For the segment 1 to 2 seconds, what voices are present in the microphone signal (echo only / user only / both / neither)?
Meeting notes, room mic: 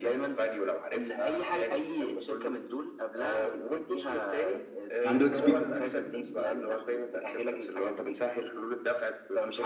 echo only